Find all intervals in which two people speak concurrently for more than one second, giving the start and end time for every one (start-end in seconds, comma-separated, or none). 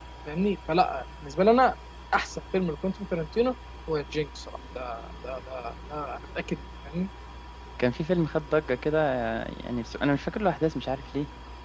none